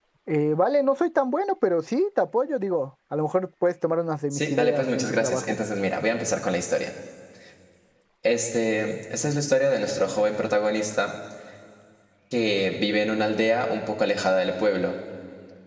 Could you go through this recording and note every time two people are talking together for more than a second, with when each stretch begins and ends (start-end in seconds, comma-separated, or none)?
4.3-5.6